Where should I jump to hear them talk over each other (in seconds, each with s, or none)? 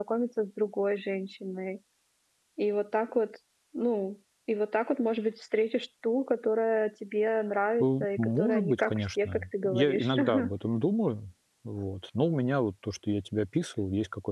7.8 s